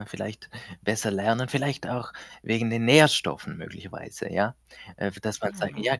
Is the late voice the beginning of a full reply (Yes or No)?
No